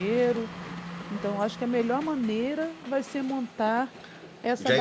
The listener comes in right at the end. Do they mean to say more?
Yes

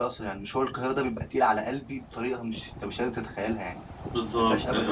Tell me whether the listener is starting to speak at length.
Yes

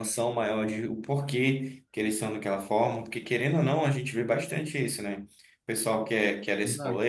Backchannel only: Yes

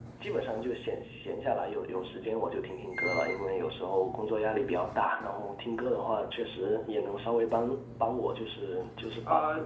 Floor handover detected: No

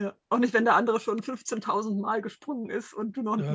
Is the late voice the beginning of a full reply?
Yes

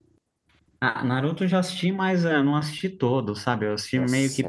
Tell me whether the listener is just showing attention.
No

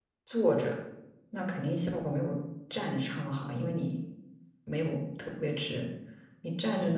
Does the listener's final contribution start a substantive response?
No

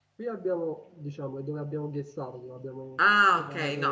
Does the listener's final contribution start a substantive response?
Yes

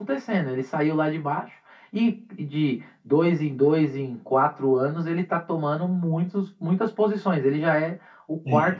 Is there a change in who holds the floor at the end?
No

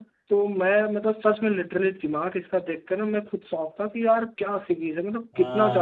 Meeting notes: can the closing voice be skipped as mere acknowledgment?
No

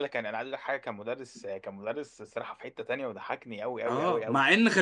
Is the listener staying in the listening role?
No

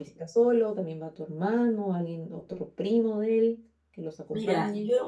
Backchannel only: No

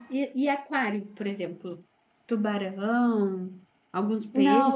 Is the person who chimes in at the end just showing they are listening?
No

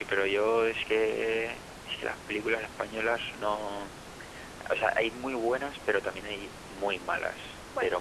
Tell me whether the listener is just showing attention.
Yes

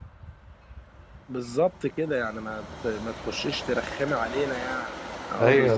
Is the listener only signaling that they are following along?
No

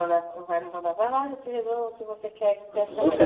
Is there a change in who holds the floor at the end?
Yes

